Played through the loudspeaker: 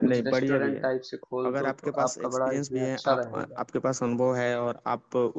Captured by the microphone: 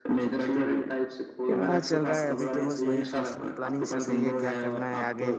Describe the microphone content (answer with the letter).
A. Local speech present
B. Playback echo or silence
A